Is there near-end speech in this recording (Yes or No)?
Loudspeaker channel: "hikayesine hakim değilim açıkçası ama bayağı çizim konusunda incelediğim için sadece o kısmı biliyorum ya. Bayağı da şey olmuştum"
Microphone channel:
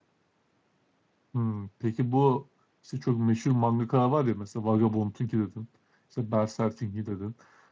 Yes